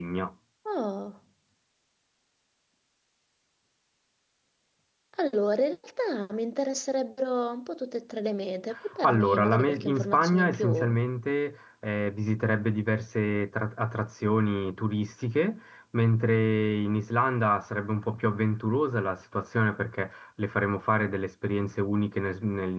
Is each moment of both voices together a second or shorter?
No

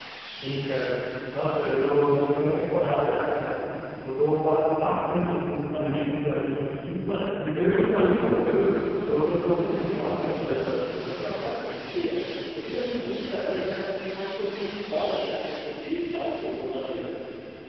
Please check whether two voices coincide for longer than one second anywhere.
Yes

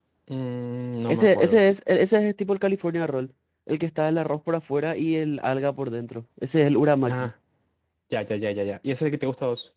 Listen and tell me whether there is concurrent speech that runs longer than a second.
No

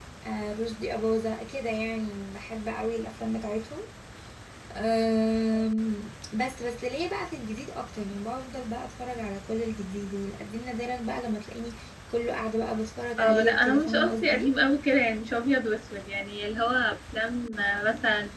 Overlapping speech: Yes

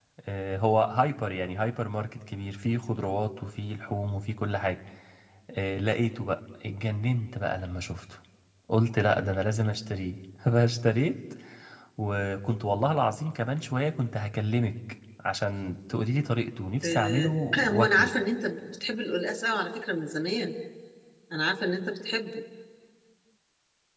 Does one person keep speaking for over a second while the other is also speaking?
Yes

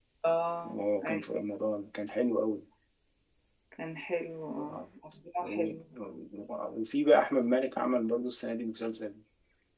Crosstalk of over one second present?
No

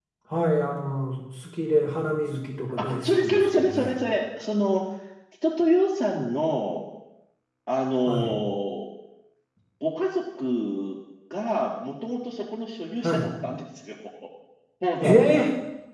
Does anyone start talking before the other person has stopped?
Yes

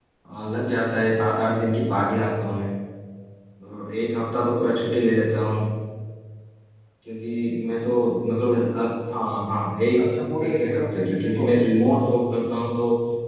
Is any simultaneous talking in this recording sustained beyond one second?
Yes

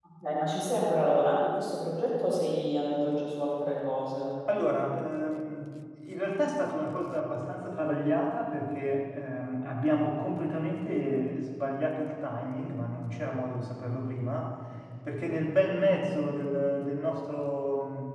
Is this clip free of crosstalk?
Yes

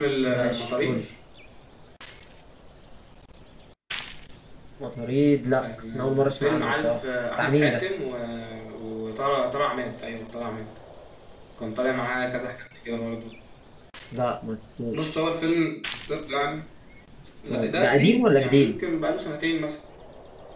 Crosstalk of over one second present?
Yes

